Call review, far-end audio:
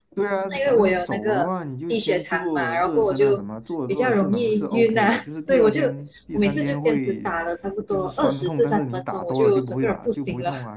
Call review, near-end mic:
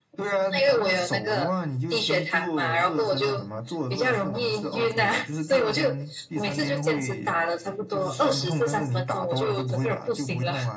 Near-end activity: none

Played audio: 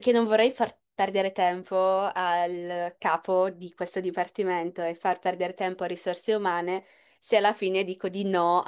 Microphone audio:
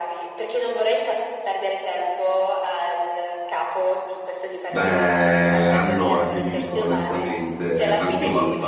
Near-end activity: present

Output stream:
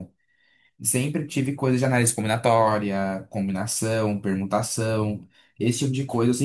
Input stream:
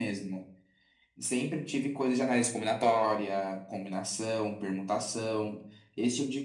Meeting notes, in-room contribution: none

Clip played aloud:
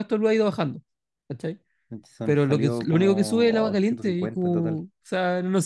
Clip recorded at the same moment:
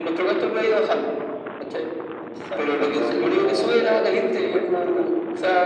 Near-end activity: none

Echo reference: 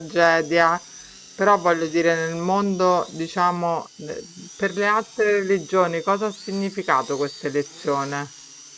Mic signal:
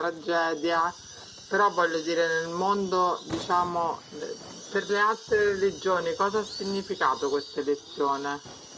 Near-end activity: none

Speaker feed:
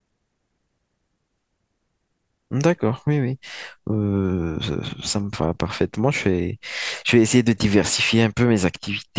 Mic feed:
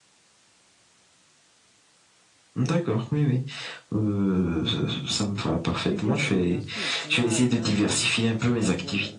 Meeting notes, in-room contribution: present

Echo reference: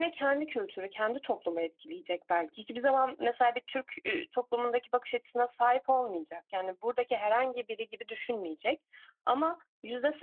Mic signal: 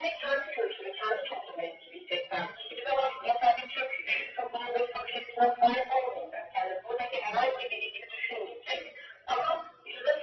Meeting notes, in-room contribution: none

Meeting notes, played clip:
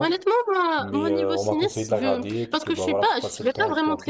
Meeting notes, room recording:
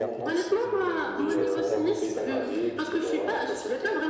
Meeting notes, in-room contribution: present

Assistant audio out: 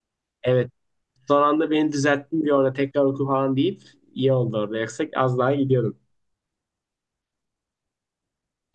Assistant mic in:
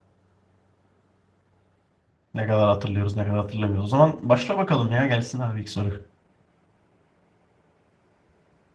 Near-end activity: present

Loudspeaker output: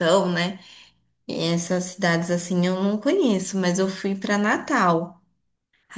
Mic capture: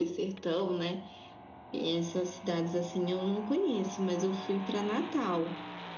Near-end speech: none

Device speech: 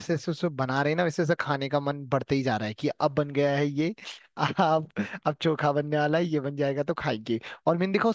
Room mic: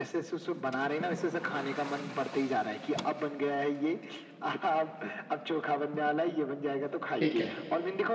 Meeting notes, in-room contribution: present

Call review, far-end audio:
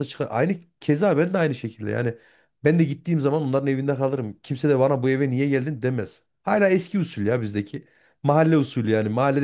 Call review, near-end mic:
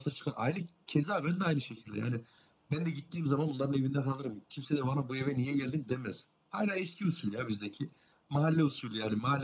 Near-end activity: none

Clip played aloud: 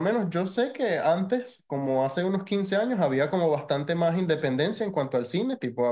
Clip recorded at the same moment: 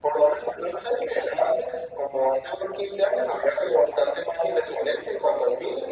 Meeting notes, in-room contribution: none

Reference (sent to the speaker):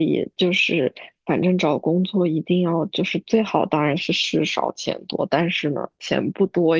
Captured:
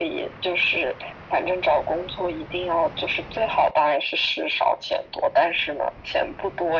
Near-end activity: none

